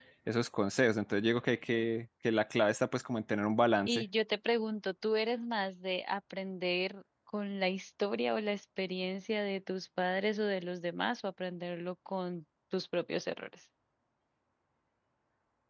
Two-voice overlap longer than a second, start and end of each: none

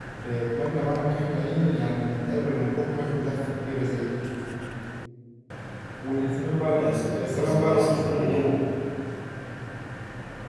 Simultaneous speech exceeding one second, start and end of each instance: 6.7-8.5

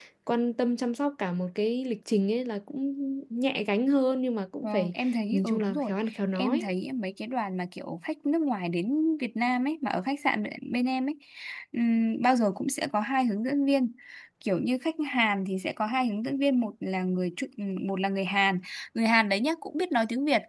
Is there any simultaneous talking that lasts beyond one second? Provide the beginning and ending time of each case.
4.6-5.9

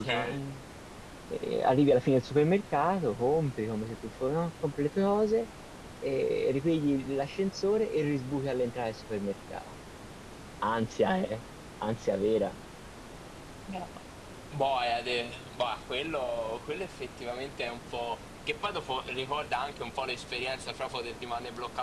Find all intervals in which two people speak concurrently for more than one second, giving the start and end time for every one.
none

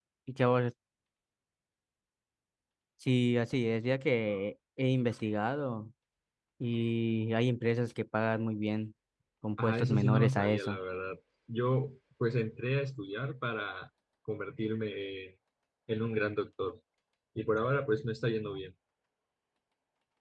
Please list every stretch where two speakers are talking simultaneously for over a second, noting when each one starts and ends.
9.6-10.8

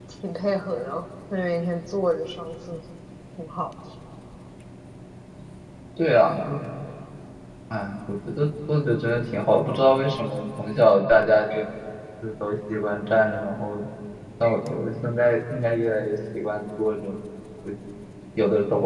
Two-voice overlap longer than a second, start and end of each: none

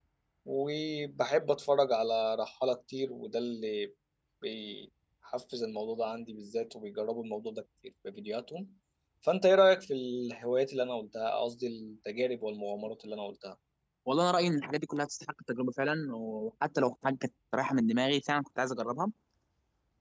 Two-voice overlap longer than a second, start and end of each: none

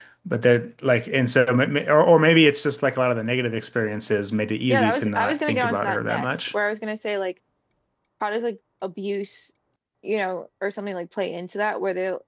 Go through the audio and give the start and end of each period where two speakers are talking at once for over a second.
4.7-6.3

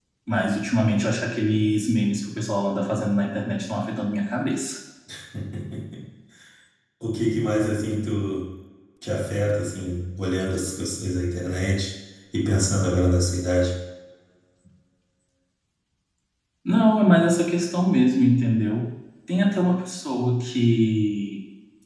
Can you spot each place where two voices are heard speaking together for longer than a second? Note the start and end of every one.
none

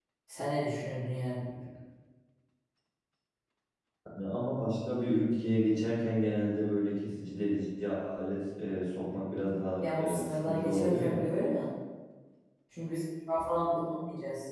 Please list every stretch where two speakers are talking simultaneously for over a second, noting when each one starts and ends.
9.8-11.2

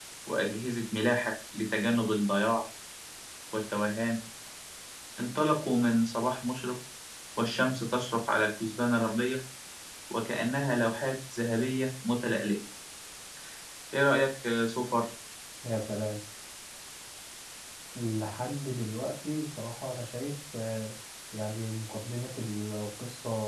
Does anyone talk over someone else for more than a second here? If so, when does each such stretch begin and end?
none

